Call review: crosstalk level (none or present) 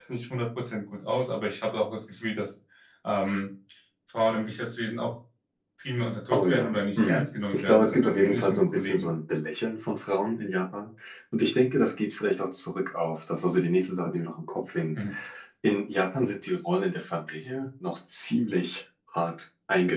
present